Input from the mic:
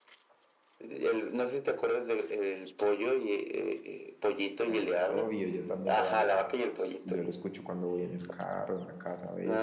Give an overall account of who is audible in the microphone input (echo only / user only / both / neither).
both